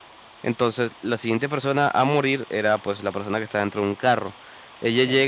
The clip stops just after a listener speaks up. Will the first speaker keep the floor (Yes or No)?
Yes